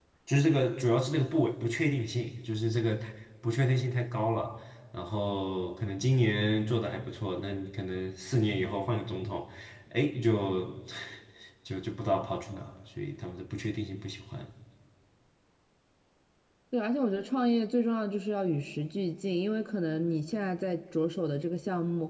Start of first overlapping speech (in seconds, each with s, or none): none